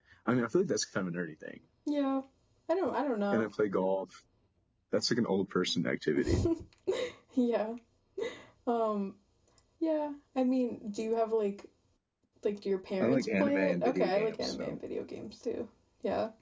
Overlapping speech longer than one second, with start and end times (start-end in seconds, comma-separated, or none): 13.0-14.8